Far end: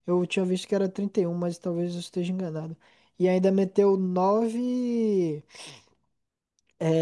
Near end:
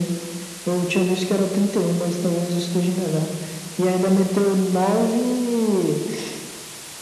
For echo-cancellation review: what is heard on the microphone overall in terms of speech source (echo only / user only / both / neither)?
echo only